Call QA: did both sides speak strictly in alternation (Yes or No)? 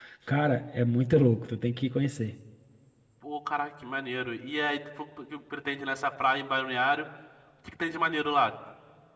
Yes